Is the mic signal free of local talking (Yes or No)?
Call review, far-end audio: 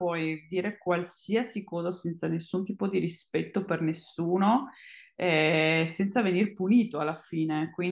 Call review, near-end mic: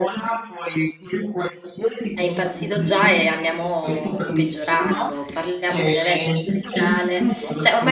No